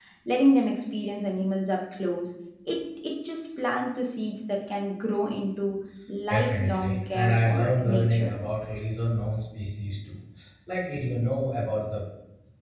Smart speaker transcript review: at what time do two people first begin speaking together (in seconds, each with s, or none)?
6.3 s